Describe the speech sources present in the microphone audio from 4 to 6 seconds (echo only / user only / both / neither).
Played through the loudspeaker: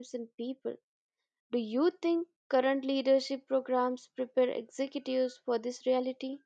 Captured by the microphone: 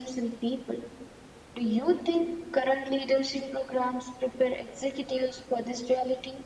echo only